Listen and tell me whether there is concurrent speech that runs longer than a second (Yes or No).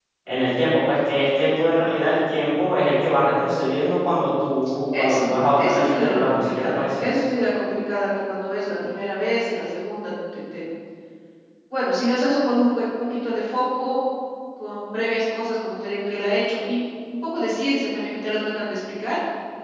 Yes